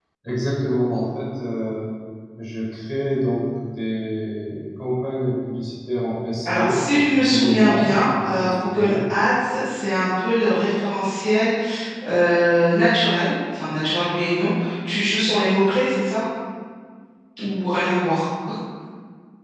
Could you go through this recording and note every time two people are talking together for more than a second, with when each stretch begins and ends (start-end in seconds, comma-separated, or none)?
6.4-8.9